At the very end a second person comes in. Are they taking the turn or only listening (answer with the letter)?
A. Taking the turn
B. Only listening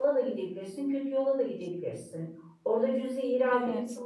B